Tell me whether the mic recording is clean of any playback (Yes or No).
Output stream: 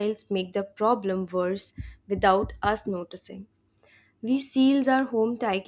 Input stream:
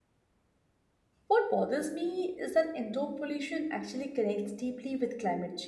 Yes